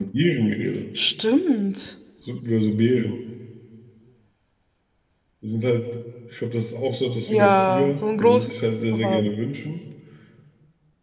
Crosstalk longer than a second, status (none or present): present